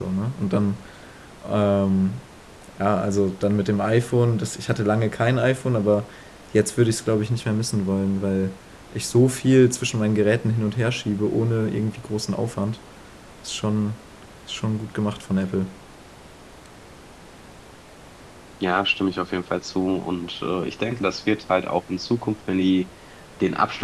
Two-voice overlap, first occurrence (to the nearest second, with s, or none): none